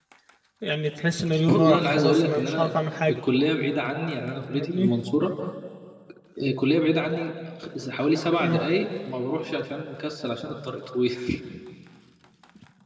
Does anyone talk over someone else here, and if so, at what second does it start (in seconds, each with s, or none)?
1.5 s